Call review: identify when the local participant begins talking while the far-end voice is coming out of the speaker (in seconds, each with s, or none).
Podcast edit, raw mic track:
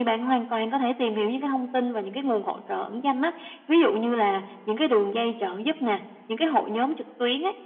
none